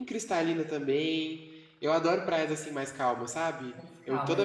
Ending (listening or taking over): listening